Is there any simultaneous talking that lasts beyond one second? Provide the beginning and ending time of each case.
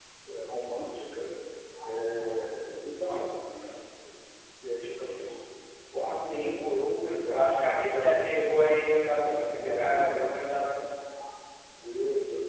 9.2-10.5

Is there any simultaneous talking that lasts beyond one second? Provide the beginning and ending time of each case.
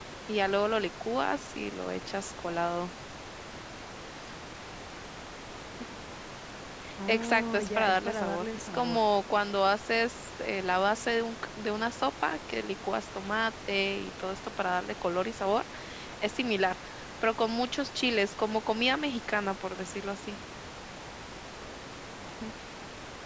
7.1-9.0

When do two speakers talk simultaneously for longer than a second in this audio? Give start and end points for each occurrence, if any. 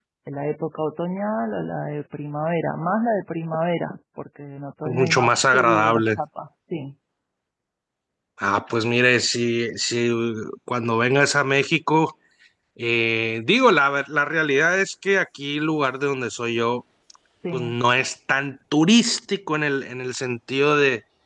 4.9-6.2

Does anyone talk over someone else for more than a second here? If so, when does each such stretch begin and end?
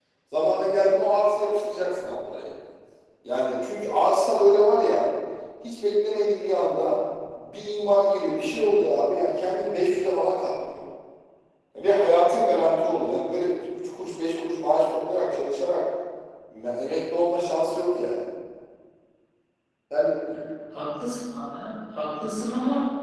none

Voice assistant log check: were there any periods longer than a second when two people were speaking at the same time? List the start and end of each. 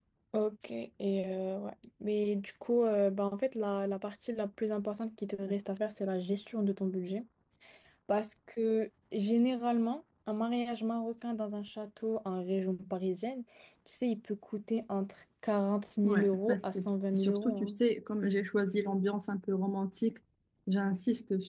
16.0-17.8

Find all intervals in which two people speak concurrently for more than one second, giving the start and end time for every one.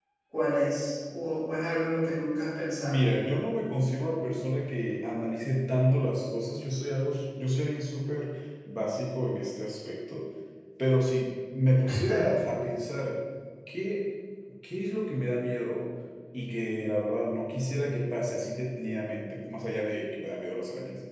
none

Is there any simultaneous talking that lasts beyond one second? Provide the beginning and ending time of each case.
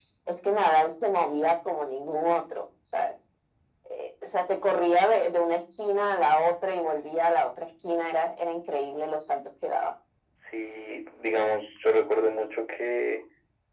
none

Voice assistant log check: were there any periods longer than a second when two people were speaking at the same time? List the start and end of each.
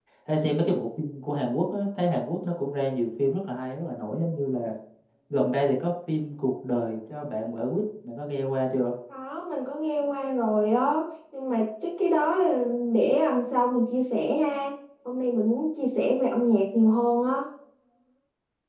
none

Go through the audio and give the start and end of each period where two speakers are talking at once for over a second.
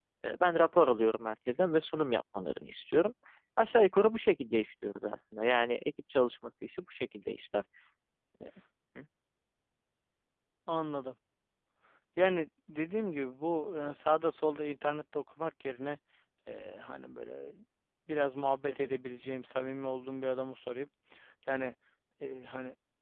none

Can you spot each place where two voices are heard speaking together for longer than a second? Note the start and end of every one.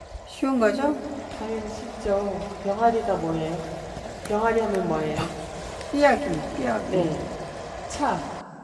none

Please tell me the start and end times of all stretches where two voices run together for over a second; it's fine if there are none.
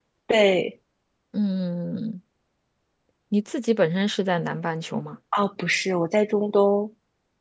none

